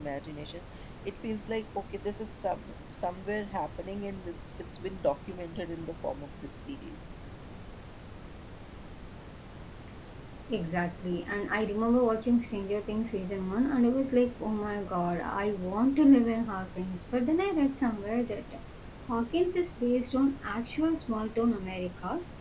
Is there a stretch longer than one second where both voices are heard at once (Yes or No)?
No